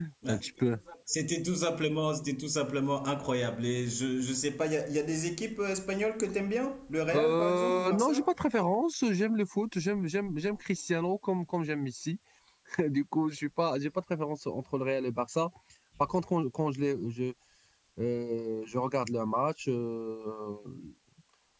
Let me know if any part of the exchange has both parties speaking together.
Yes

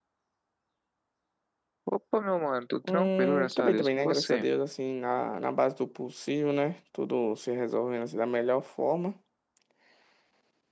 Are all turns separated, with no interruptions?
No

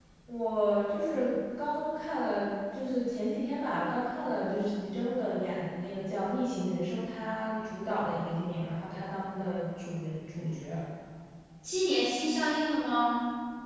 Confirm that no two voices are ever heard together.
Yes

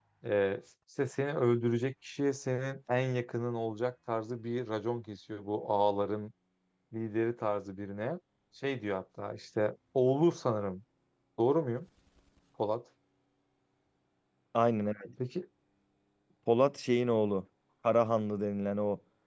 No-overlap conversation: Yes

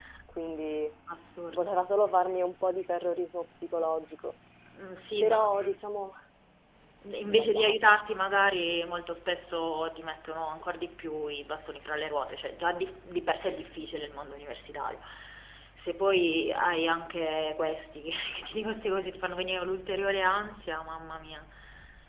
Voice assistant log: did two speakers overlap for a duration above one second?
No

